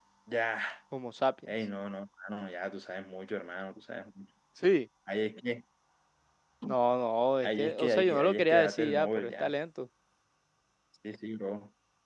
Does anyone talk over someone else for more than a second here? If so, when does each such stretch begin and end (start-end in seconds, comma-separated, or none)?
7.4-9.5